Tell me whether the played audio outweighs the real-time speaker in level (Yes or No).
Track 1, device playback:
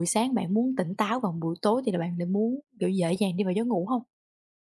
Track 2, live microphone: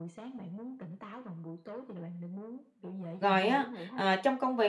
No